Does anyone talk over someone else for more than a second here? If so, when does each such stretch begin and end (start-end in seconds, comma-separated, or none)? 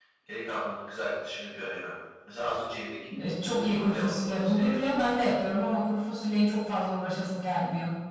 3.5-4.8